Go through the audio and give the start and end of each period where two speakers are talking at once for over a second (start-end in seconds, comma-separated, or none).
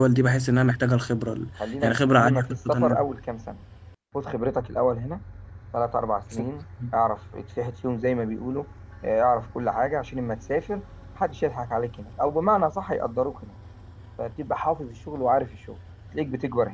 1.8-3.0